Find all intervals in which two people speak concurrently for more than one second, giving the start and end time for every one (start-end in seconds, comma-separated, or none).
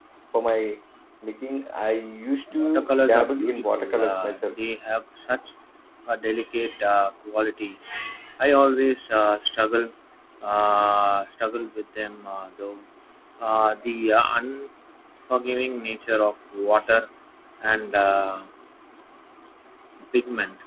2.5-4.5